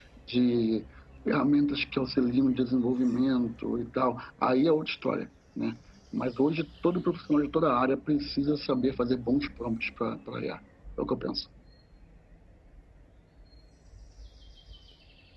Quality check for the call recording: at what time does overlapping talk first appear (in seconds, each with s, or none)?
none